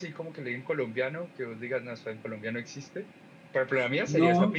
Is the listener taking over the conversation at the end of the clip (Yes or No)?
Yes